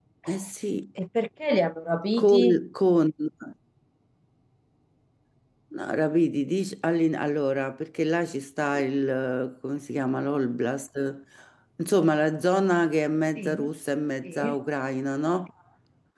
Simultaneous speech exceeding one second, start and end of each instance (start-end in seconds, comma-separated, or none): none